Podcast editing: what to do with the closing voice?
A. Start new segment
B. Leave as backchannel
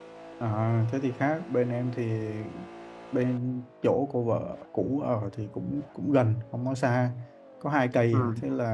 B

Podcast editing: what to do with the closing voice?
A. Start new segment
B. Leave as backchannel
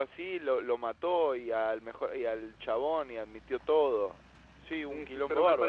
A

